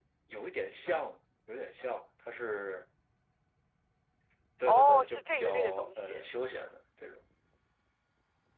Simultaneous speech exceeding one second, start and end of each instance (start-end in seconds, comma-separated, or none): 4.7-6.2